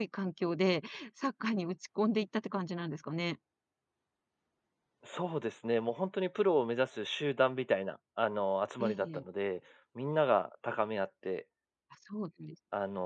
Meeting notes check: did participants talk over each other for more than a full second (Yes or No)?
No